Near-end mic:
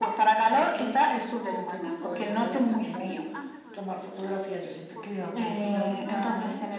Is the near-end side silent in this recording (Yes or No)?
No